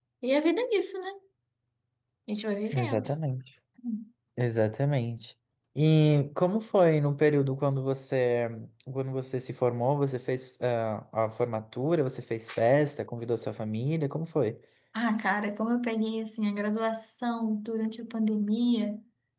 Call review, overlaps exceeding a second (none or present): none